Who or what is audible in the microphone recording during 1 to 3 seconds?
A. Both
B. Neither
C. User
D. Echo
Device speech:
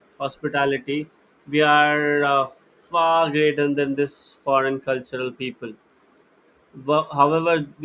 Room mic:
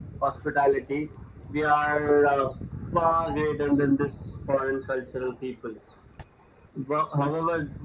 D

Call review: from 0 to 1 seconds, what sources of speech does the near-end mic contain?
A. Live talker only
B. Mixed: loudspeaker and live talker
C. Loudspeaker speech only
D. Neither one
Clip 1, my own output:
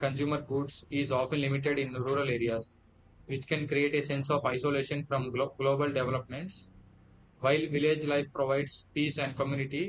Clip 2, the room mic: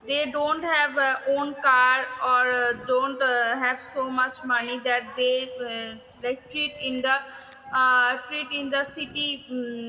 A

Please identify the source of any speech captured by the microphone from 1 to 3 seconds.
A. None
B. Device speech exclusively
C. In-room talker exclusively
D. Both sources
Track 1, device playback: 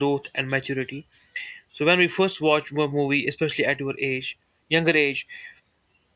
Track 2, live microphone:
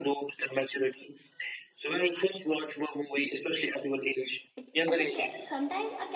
B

